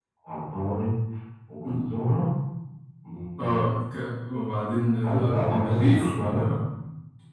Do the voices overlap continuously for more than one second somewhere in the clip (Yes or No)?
Yes